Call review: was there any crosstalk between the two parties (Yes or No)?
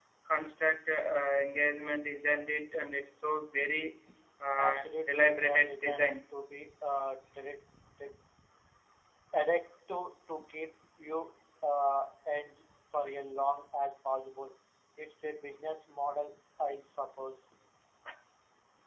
Yes